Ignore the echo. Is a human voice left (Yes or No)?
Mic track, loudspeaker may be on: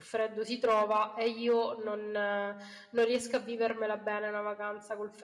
Yes